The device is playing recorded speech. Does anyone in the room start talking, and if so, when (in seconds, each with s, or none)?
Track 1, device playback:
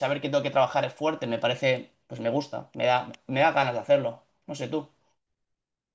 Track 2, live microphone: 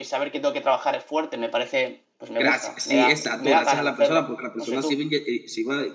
2.4 s